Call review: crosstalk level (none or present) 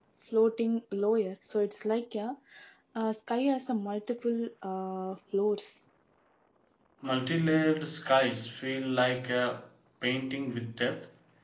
none